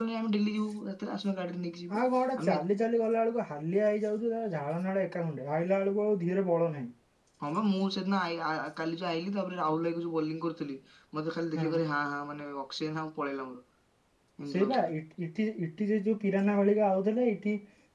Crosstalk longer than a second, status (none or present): none